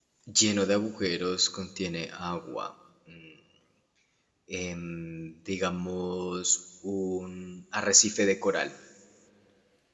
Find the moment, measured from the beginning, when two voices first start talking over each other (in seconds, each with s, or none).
none